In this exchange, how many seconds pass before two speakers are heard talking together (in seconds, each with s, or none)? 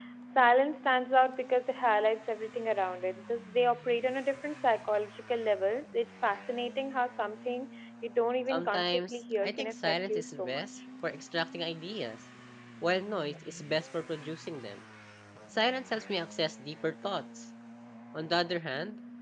8.5 s